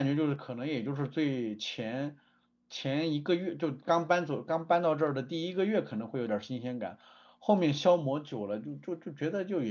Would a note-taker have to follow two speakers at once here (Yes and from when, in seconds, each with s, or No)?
No